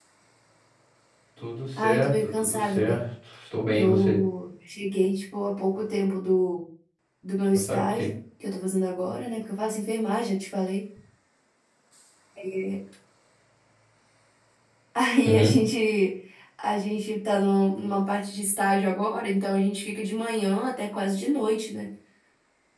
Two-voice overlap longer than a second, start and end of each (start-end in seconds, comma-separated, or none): 1.8-3.0